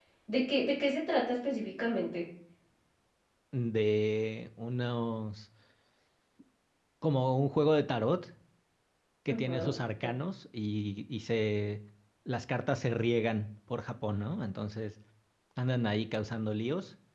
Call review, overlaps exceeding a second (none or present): none